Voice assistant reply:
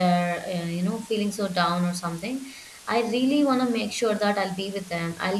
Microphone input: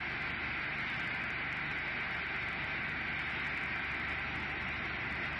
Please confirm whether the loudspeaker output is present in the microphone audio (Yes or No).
No